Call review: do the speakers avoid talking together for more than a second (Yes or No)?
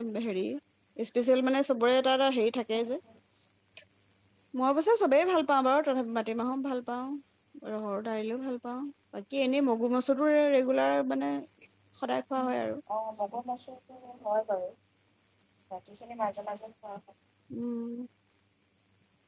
Yes